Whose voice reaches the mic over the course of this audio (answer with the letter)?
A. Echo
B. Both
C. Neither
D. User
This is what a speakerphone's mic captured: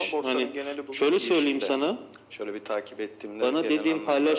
A